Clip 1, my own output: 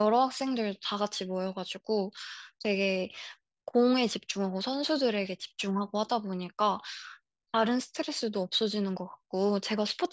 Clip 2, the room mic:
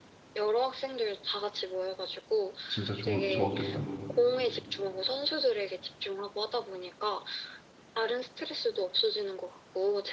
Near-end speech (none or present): present